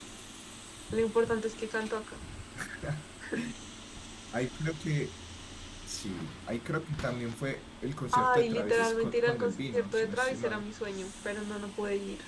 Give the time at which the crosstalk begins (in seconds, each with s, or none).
8.1 s